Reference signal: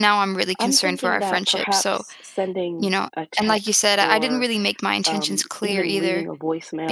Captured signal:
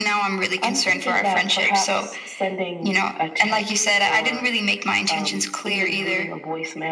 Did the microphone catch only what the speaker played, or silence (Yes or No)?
Yes